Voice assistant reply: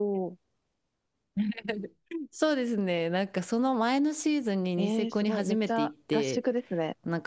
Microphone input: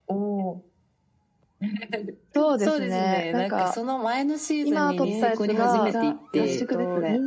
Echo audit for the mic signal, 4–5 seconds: both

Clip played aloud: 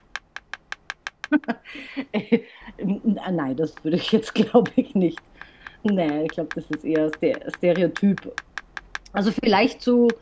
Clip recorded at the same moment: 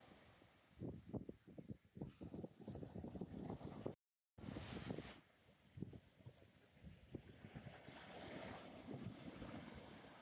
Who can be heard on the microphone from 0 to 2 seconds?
neither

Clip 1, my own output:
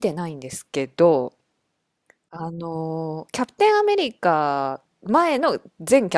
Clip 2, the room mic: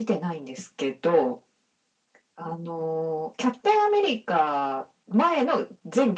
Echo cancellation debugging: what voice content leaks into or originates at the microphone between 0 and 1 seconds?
echo only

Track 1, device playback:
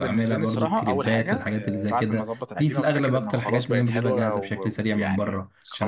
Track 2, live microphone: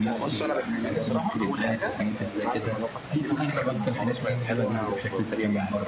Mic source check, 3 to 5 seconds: echo only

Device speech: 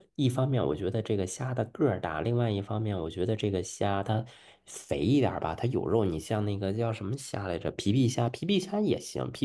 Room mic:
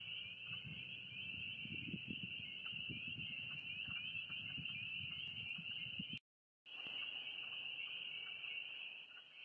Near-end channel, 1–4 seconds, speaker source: neither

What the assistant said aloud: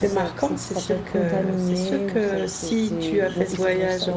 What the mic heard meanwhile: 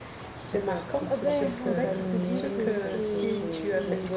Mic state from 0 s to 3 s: both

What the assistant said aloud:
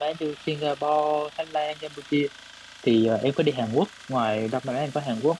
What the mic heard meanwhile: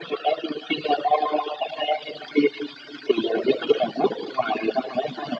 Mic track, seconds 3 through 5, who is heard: echo only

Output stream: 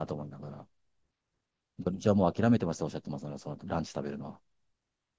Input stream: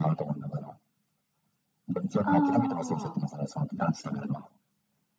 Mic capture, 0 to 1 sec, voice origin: echo only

